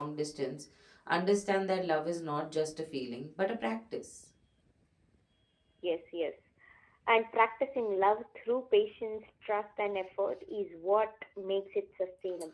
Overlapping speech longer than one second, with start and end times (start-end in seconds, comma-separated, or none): none